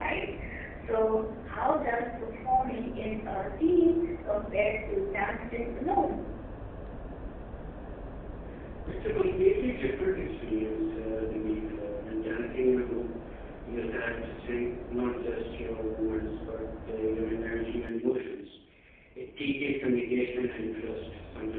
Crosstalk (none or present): none